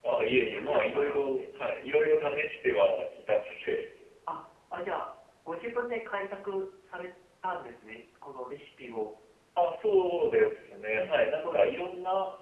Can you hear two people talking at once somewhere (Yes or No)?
Yes